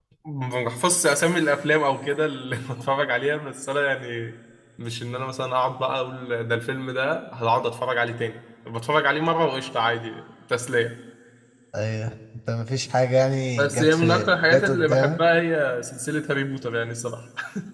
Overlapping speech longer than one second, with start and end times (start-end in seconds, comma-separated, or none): 13.6-15.2